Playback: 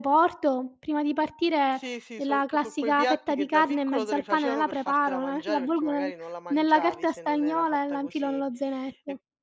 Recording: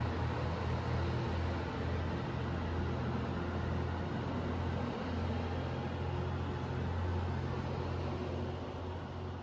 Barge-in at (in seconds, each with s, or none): none